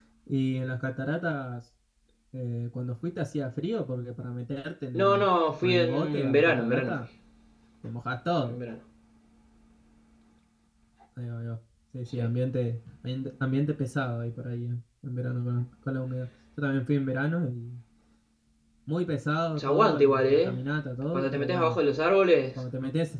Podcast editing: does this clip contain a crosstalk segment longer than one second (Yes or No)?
Yes